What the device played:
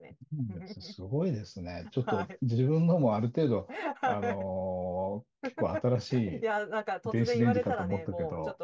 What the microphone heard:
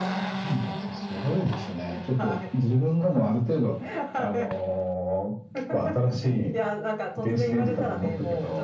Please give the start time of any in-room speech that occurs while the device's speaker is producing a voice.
none

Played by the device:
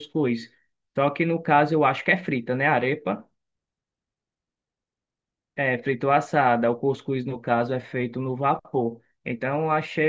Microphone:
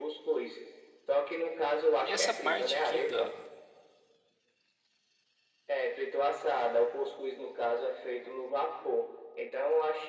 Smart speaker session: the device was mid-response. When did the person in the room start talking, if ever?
2.0 s

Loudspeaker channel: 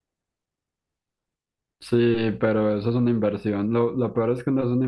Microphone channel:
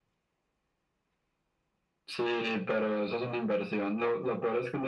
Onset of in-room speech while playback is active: none

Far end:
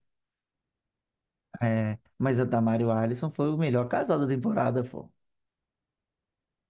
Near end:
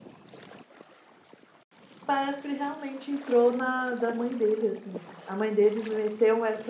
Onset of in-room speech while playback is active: 2.0 s

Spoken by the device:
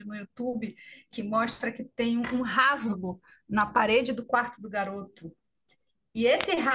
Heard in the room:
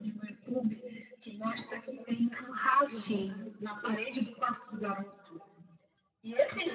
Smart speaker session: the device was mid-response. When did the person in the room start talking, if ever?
2.9 s

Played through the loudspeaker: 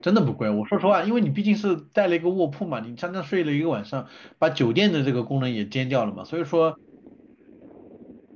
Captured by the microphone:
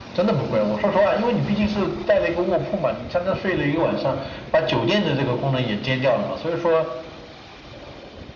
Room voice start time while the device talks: none

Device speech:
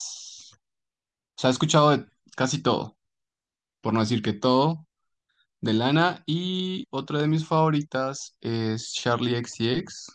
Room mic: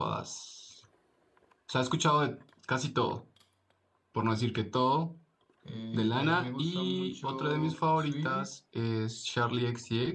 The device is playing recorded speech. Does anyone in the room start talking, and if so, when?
5.6 s

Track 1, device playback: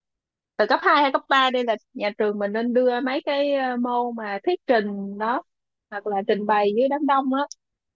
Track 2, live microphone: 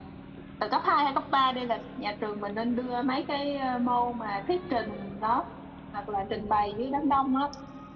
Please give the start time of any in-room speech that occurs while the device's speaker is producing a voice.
none

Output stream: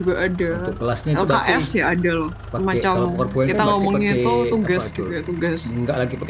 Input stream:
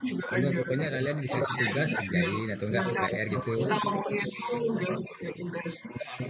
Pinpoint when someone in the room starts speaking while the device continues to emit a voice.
0.3 s

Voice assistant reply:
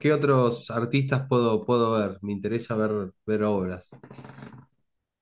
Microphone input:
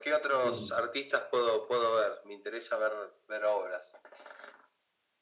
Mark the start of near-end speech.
0.4 s

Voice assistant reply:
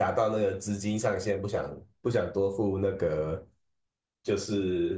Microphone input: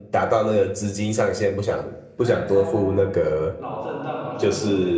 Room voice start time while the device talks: 2.2 s

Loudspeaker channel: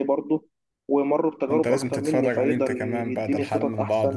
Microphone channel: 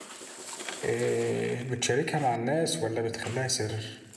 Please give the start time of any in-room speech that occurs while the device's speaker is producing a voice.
0.8 s

